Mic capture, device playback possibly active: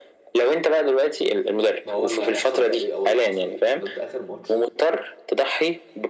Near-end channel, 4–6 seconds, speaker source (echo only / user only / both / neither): both